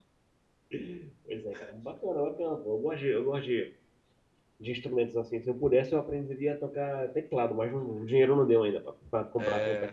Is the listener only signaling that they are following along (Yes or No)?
No